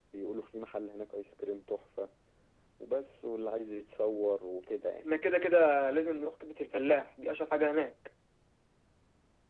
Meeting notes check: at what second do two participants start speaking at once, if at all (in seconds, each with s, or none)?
none